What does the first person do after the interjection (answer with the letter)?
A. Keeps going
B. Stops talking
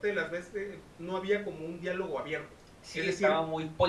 B